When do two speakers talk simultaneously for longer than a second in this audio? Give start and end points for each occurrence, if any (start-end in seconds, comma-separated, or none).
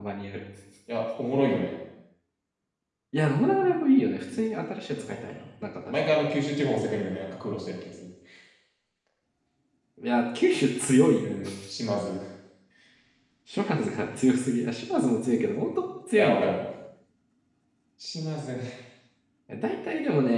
none